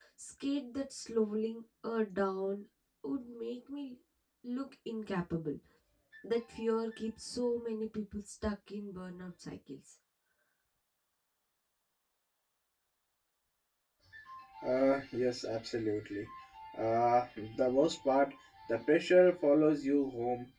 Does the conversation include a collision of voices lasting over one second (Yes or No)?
No